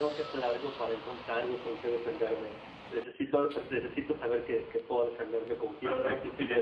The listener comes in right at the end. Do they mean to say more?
Yes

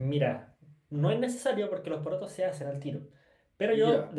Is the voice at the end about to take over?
No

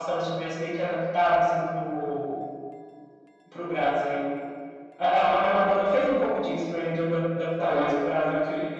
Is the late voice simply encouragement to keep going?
Yes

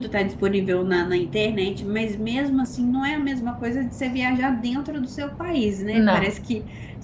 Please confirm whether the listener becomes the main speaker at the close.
No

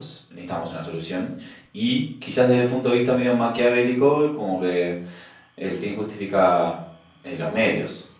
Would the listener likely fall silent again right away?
Yes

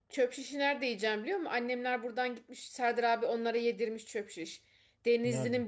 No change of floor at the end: Yes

